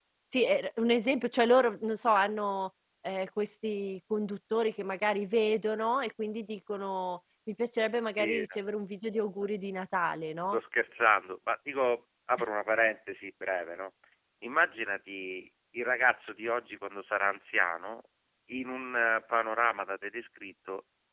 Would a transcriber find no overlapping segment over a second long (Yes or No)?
Yes